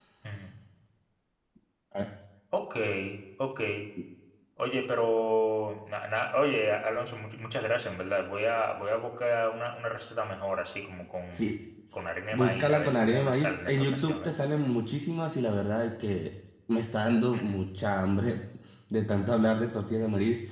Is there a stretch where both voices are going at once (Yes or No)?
Yes